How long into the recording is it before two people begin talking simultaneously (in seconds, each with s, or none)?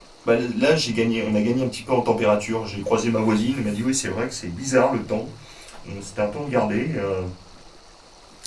none